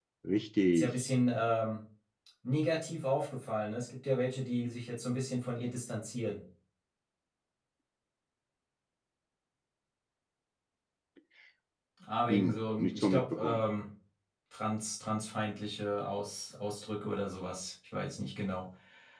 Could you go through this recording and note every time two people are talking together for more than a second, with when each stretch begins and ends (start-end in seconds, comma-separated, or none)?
12.3-13.6